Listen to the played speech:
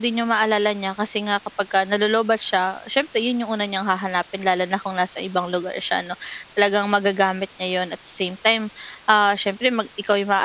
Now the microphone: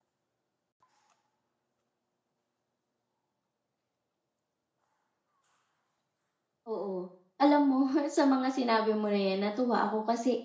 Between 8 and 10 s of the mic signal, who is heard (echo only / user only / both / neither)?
user only